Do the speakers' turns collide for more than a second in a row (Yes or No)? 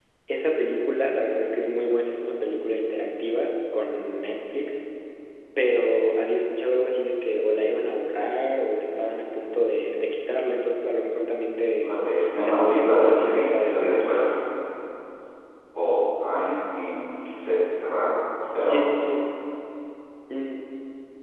Yes